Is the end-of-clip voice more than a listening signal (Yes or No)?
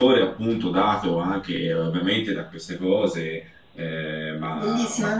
Yes